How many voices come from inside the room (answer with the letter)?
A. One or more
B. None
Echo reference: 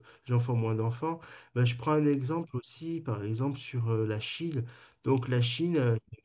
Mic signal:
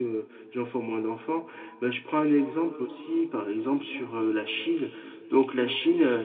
B